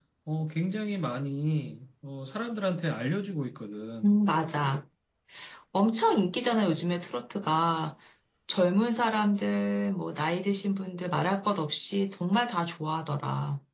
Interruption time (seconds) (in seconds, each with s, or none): none